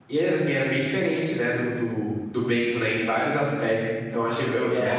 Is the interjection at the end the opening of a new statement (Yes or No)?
No